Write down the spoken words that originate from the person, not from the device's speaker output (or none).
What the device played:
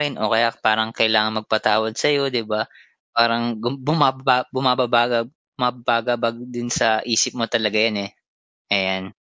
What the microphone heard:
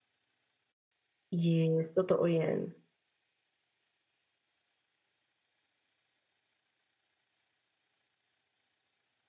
Yes, totoo yan.